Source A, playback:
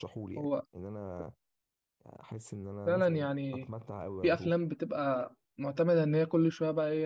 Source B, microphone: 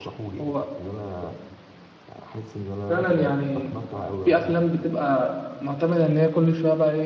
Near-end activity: none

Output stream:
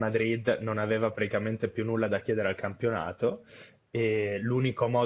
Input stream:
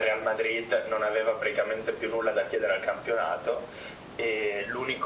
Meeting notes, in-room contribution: none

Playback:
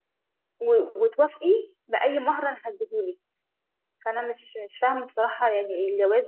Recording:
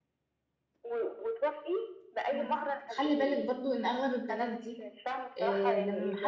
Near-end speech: present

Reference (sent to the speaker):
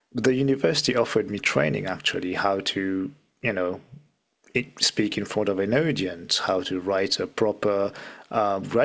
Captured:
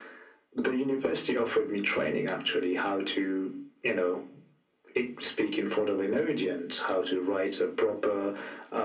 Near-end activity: none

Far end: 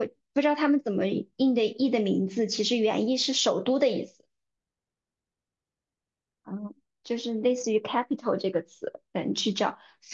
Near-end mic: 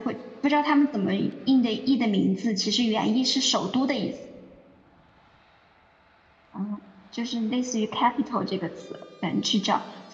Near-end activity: none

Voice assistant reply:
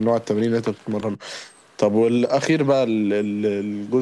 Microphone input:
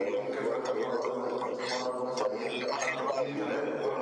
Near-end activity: present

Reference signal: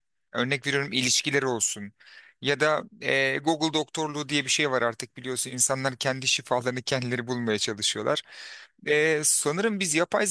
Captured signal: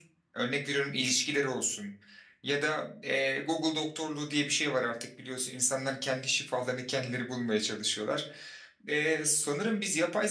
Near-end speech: none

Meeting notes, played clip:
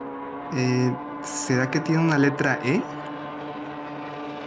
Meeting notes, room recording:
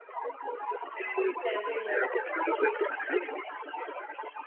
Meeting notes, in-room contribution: present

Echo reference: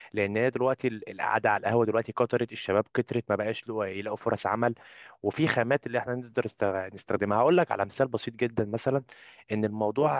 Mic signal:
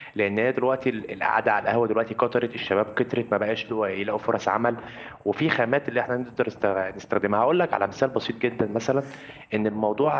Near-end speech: none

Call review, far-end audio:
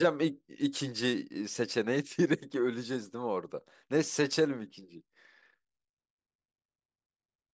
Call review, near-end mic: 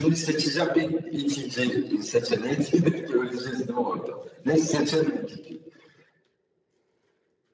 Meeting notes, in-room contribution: none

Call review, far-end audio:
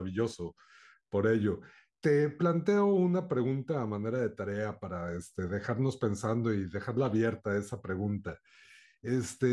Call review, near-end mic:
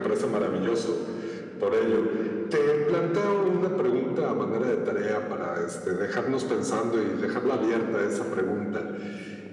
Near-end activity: none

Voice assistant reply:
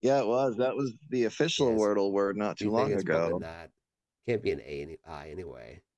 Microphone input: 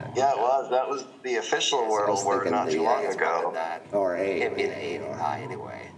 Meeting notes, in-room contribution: present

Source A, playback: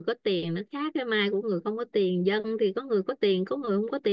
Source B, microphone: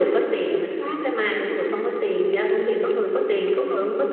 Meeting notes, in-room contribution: none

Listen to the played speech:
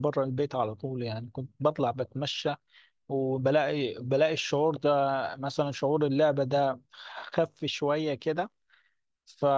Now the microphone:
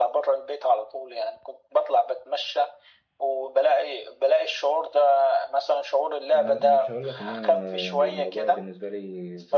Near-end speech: present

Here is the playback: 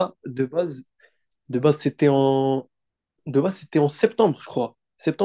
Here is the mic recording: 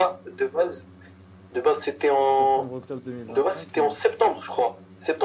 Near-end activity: present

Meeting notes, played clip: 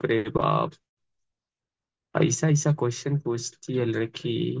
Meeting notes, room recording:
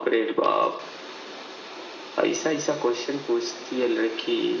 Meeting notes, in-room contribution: none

